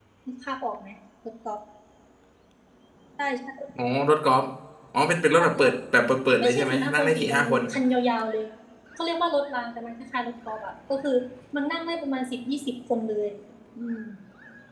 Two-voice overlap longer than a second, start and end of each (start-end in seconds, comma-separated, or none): 6.4-7.6